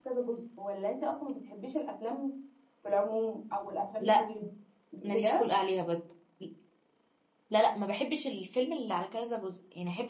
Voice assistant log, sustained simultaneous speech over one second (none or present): none